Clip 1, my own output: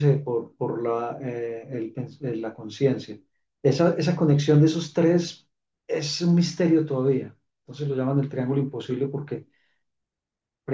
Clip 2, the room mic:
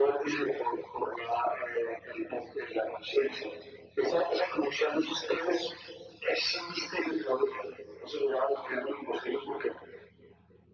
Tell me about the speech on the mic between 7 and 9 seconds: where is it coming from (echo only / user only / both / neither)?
echo only